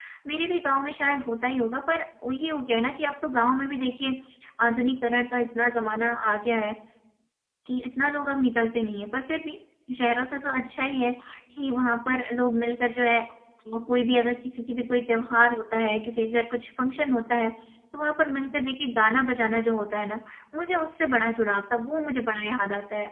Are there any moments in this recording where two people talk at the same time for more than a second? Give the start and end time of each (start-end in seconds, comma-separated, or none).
none